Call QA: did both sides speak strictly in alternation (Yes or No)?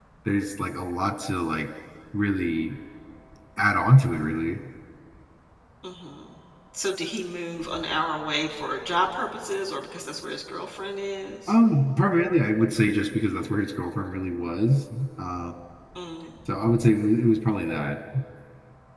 Yes